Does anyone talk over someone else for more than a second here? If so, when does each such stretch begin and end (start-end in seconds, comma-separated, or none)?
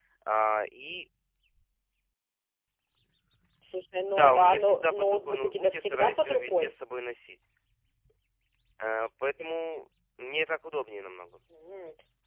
4.1-6.7